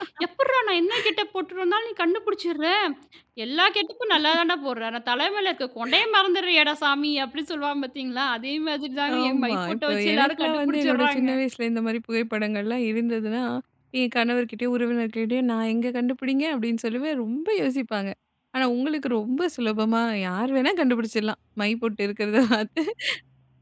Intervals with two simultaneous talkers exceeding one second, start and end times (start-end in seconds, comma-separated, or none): 9.2-11.3